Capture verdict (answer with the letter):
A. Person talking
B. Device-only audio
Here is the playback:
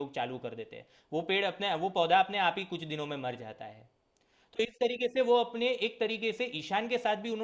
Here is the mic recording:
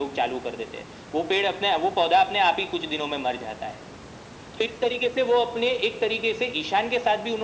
B